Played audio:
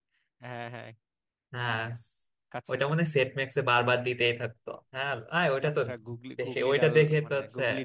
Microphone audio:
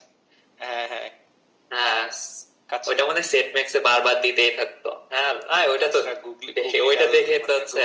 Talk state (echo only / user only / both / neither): echo only